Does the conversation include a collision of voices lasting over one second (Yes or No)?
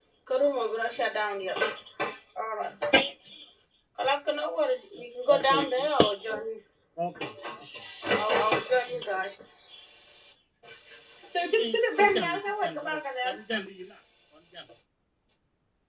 Yes